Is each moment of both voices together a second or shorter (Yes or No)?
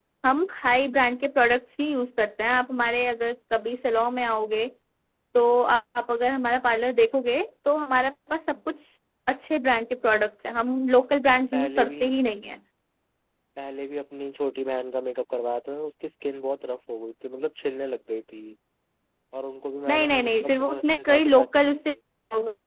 No